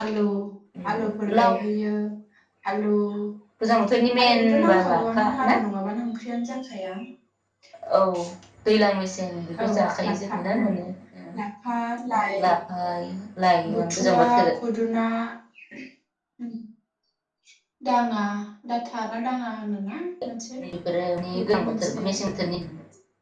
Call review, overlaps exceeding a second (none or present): present